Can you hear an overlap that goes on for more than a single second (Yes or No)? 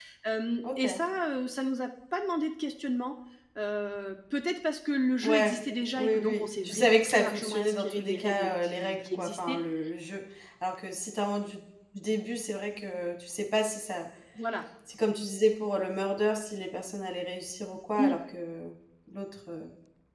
Yes